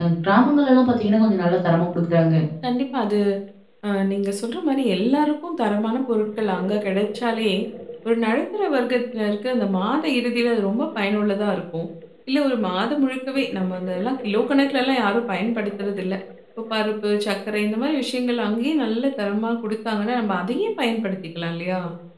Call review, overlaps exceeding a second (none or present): none